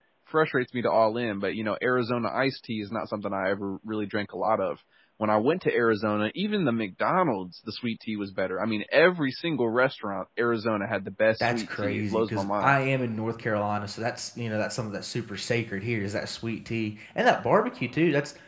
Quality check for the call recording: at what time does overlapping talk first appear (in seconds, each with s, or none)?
11.4 s